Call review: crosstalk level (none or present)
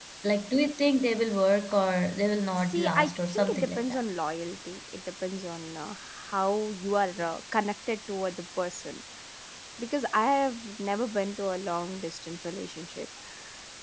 present